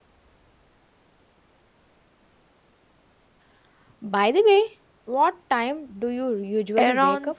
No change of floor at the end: No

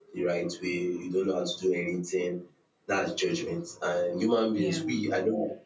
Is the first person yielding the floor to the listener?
No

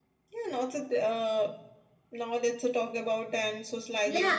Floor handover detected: Yes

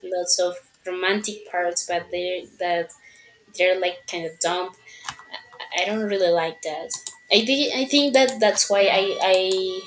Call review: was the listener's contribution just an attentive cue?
Yes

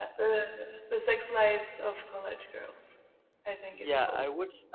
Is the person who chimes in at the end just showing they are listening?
No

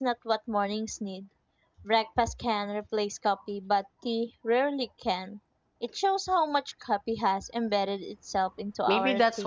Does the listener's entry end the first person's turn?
Yes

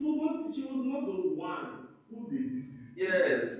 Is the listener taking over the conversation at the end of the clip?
Yes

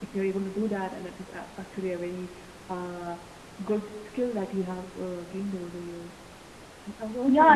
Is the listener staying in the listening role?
No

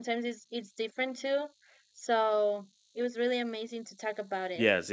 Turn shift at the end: Yes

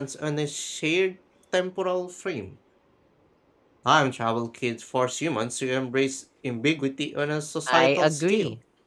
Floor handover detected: Yes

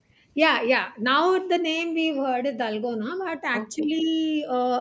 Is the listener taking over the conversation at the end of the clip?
No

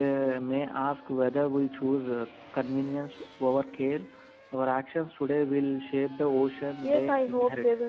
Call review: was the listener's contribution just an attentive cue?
No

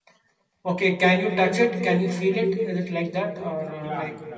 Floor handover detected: Yes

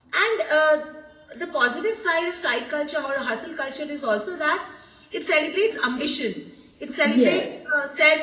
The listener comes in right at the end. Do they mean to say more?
No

